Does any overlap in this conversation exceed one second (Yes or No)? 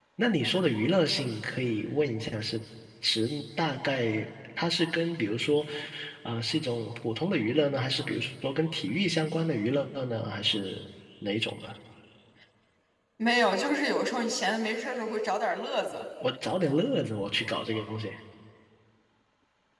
No